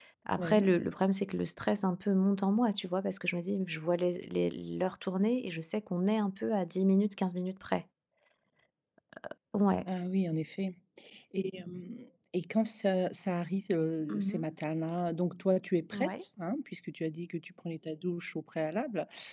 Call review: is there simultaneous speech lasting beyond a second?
No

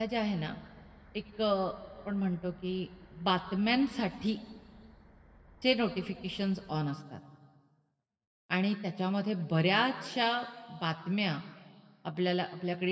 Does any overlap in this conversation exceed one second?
No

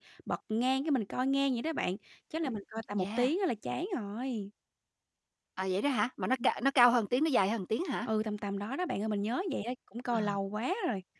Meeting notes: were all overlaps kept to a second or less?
Yes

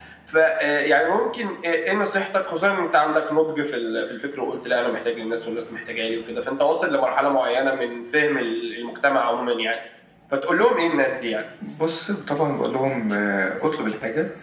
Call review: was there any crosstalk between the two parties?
No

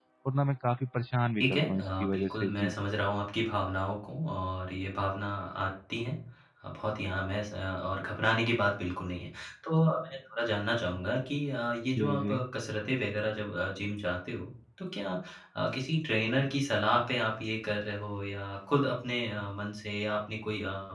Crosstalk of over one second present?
Yes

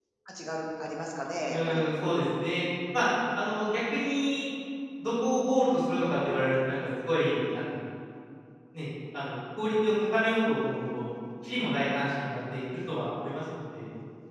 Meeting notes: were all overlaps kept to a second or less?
Yes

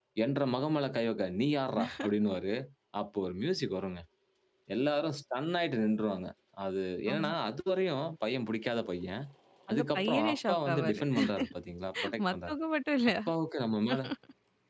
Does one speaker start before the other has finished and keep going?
Yes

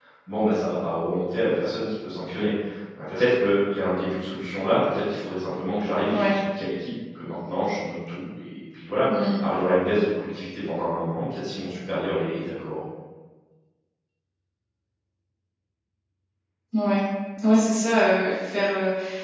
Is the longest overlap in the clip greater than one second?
No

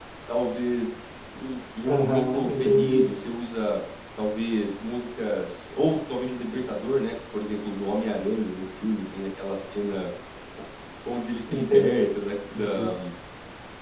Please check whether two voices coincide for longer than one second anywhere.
Yes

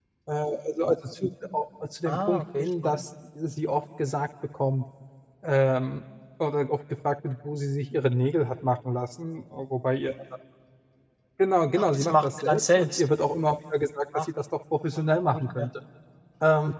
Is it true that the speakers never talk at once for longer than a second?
No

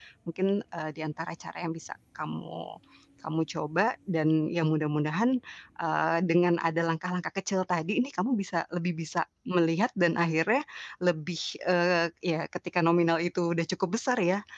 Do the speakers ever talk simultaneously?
No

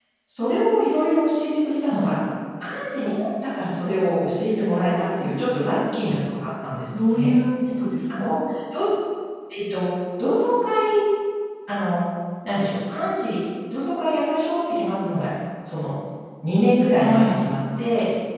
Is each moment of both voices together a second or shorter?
Yes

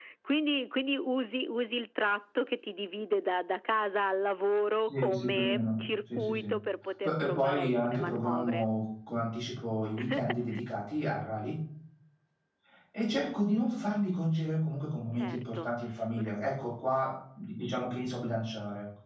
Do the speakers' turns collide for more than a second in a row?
Yes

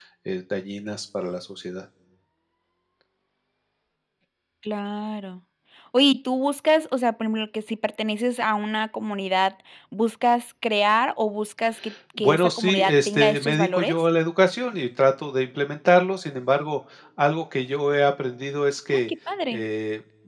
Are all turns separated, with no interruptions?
No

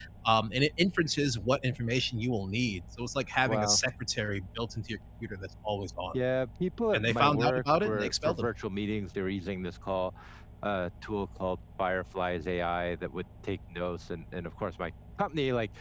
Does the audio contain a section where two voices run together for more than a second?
Yes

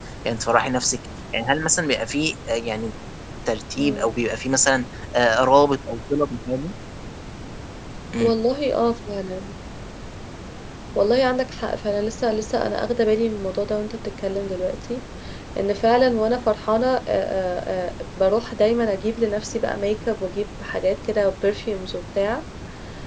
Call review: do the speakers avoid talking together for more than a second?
Yes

